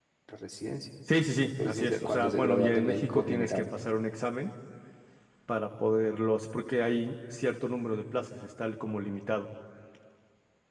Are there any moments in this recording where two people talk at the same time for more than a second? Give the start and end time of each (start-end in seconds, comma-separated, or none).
1.6-3.6